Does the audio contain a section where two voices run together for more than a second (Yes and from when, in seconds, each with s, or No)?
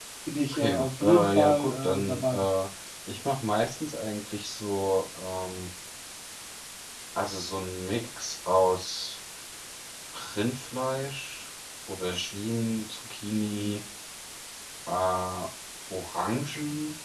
Yes, from 0.5 s